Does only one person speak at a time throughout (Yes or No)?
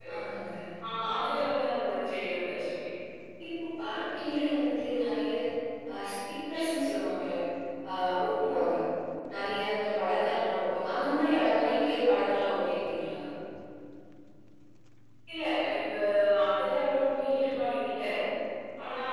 Yes